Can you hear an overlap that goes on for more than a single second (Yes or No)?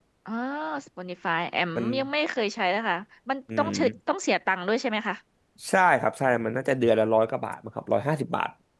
No